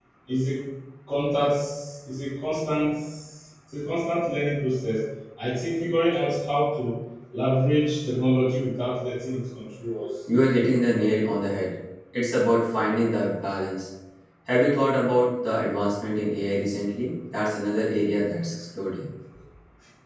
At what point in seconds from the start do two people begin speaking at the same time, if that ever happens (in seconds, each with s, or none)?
none